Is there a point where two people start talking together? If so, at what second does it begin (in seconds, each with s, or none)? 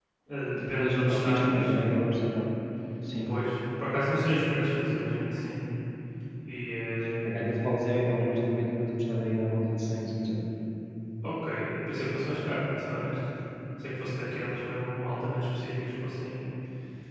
0.6 s